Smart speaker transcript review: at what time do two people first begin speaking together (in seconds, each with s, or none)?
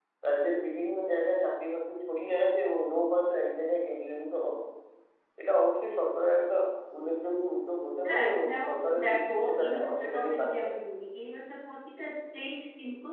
8.1 s